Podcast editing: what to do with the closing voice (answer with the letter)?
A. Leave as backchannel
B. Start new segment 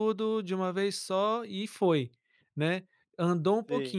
A